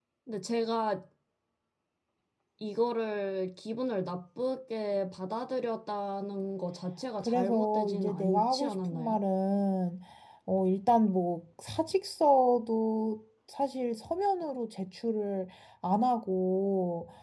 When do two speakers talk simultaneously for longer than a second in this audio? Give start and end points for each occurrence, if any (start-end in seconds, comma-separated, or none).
7.2-9.2